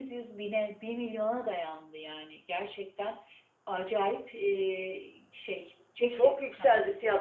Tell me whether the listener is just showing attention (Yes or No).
No